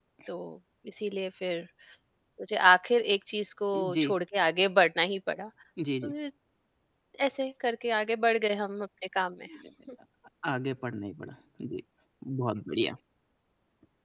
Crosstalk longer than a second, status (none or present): none